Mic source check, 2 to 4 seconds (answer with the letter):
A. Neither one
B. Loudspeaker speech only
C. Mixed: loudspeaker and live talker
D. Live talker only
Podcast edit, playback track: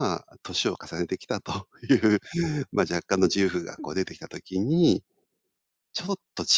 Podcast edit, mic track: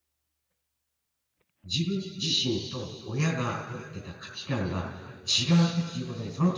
D